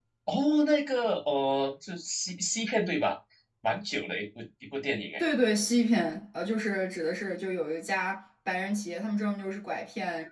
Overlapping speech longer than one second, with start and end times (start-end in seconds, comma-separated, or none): none